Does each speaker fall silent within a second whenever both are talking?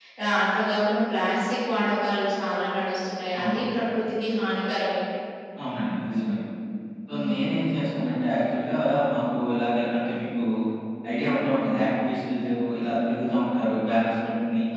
Yes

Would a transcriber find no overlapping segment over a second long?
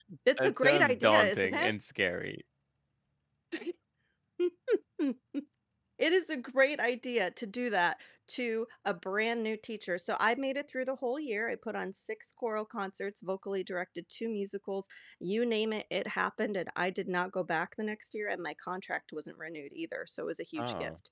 No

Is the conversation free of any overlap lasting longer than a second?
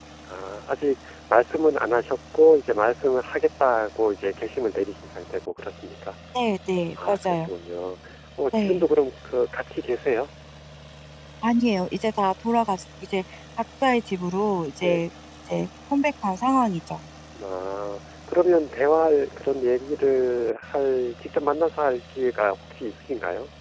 Yes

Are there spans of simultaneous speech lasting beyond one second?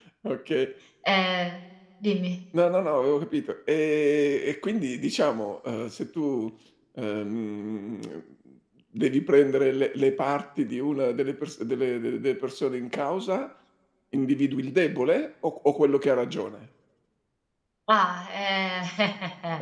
No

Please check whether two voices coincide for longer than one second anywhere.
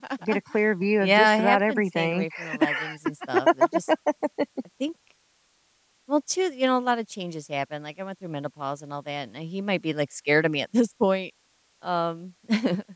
Yes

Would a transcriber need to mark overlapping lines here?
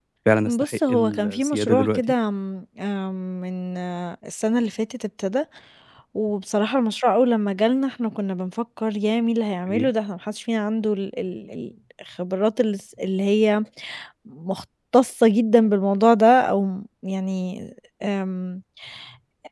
Yes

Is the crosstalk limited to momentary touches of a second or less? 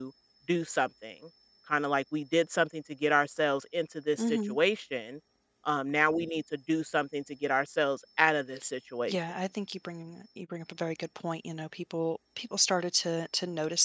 Yes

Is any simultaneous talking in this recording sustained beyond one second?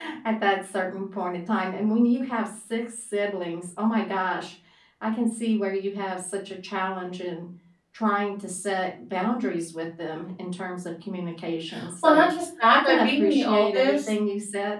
Yes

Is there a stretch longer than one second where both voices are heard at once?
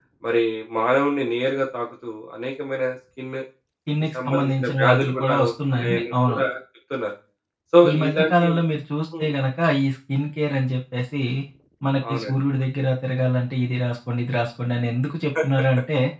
Yes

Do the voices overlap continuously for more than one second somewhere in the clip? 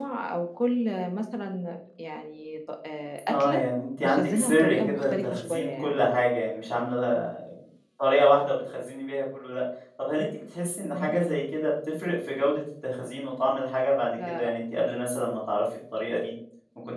Yes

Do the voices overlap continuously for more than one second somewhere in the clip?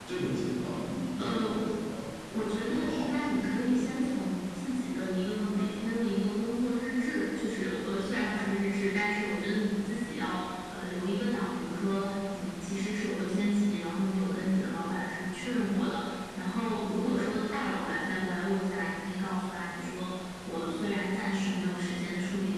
Yes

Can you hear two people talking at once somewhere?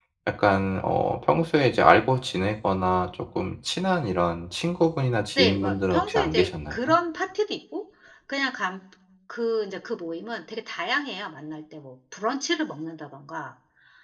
Yes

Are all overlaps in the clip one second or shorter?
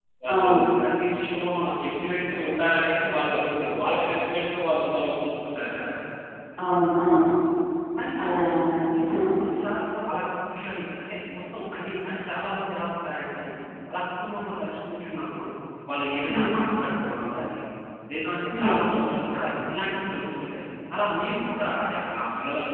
Yes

